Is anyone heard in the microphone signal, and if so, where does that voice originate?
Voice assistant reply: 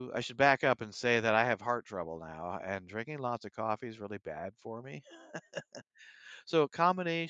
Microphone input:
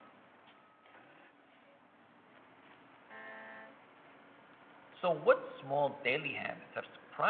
user only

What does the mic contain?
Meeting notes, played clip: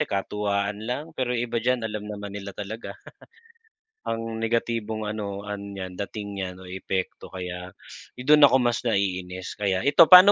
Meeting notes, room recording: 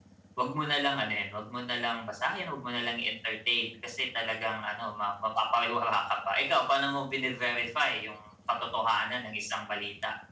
user only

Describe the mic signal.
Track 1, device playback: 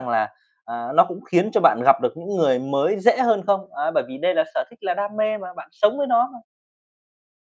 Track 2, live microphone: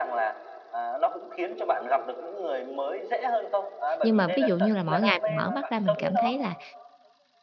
both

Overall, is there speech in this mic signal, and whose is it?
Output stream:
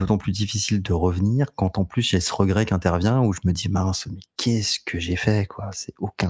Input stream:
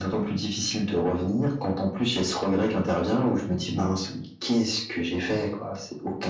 echo only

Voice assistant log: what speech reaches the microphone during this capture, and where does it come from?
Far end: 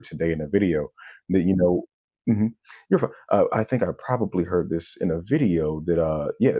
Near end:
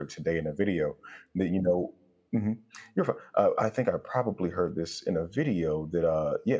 echo only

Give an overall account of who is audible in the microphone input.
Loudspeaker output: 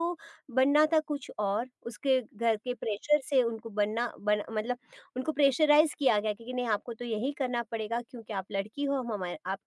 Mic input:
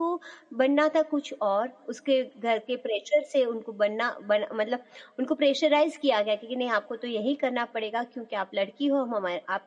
echo only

